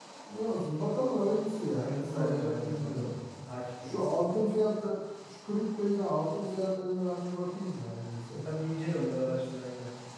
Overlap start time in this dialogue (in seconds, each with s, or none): 1.7 s